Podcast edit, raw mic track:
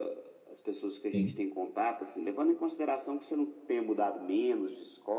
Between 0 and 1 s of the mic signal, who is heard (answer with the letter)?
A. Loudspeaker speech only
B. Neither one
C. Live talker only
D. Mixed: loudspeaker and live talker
A